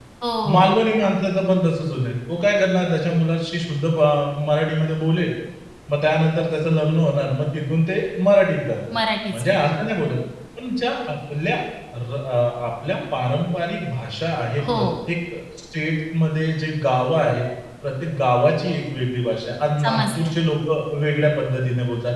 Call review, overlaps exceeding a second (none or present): none